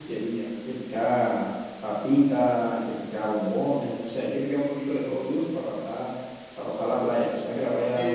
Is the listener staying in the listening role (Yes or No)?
No